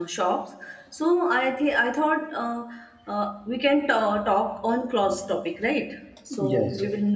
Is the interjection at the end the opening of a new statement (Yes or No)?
No